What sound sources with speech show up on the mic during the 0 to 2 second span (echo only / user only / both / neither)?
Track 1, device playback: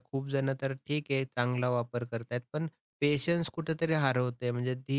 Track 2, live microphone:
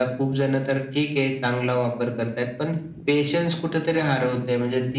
echo only